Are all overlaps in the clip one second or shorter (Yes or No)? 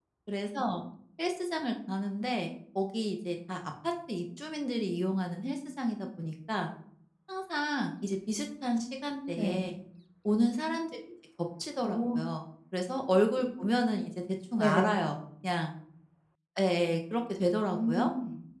Yes